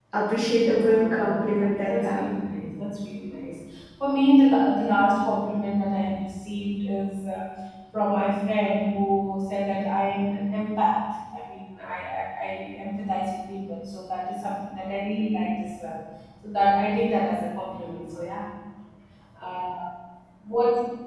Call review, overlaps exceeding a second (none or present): present